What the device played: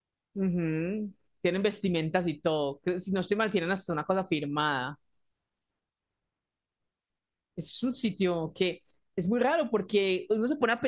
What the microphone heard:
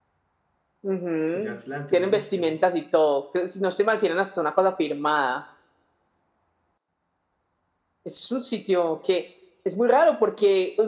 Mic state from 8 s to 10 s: echo only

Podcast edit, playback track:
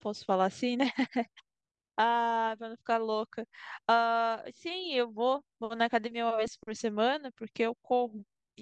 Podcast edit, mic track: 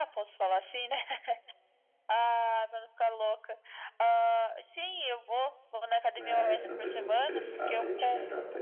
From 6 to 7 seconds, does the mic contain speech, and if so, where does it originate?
both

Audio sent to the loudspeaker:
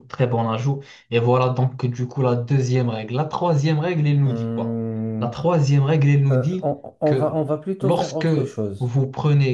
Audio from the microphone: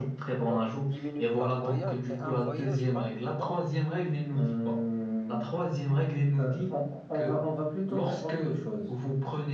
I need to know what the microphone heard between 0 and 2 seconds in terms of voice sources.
both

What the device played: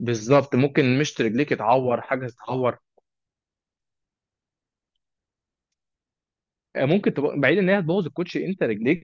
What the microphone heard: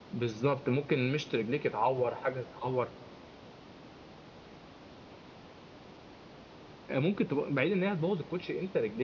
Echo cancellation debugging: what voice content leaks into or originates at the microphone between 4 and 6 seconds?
neither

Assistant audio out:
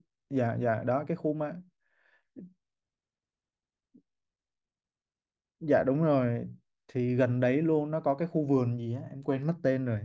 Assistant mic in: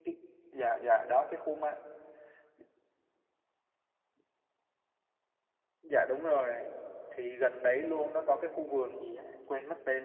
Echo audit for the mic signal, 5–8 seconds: echo only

